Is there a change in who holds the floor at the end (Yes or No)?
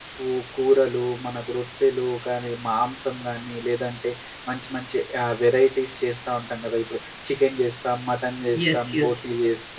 No